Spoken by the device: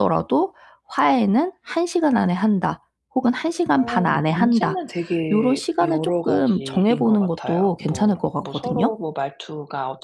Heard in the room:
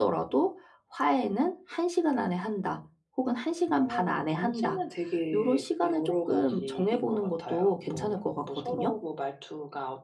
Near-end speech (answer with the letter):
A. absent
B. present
A